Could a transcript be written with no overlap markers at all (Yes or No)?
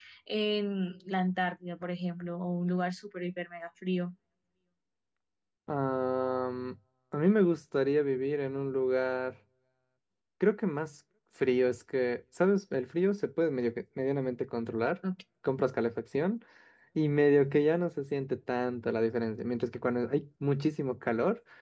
Yes